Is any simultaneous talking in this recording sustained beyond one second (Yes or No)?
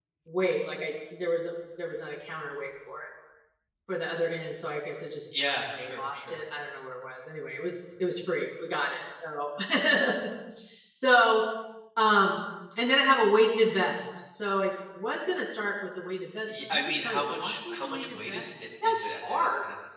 Yes